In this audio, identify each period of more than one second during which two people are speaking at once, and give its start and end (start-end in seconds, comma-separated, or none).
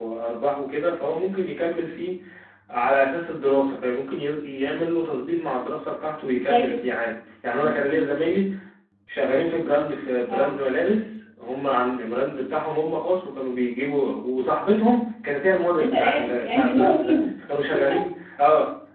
15.8-17.2